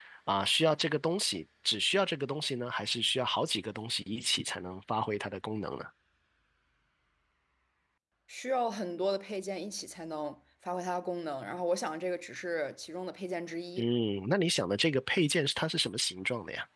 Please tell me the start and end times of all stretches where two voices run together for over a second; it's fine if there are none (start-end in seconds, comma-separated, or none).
none